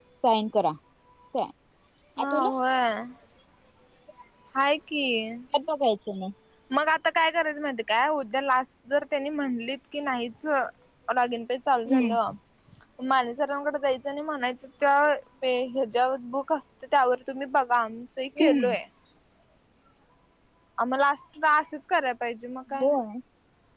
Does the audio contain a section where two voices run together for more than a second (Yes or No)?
No